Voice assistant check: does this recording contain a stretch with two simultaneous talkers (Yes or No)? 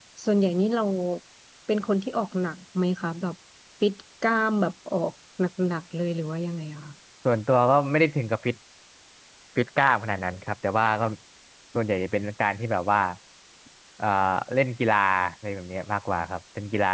No